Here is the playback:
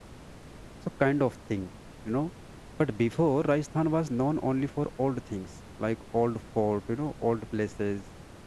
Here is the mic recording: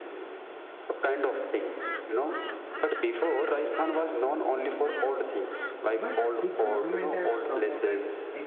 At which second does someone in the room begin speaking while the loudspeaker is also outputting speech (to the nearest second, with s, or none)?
6 s